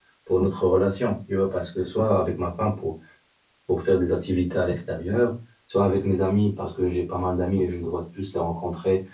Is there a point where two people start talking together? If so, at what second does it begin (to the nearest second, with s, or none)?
none